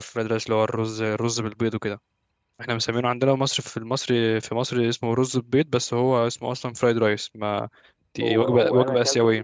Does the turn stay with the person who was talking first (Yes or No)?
No